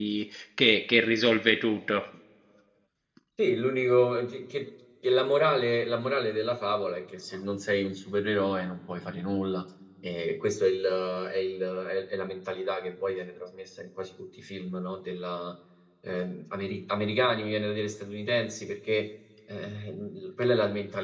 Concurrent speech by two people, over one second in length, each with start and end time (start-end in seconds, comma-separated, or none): none